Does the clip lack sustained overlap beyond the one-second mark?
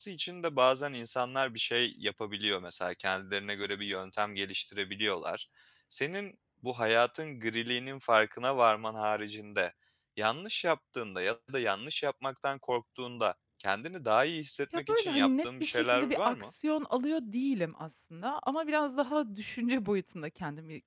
No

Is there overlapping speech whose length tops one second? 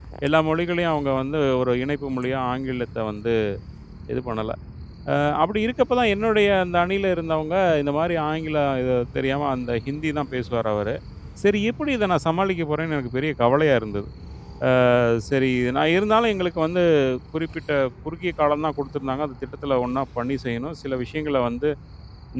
No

